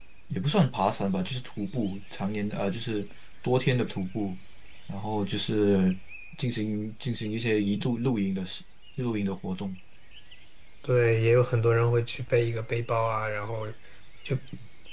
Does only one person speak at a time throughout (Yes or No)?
Yes